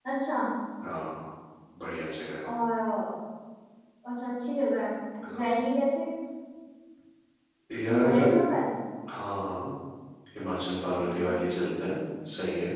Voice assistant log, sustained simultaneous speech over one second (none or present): none